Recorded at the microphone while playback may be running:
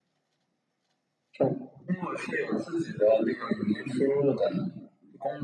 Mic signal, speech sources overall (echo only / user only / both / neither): echo only